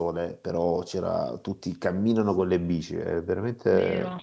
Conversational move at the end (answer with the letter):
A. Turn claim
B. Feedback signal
A